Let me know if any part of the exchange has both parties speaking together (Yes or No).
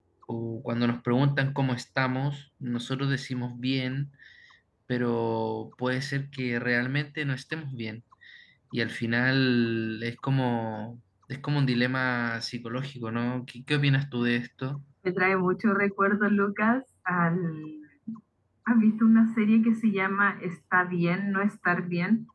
No